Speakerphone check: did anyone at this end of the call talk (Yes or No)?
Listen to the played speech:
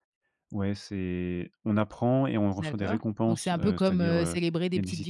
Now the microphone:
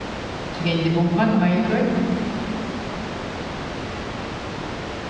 Yes